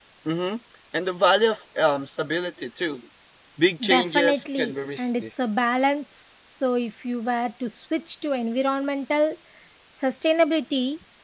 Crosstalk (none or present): present